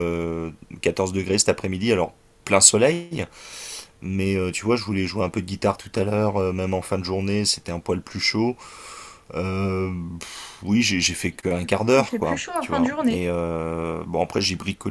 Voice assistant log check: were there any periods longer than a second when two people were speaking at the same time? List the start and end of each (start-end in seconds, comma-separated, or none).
11.6-13.2